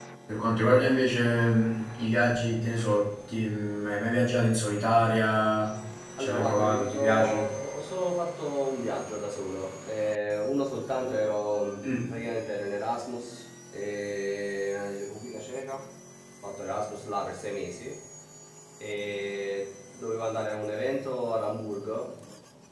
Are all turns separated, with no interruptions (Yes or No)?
No